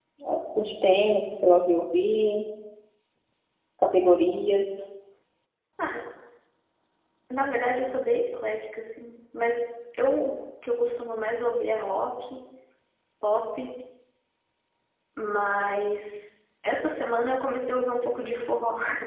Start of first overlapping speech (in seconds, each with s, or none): none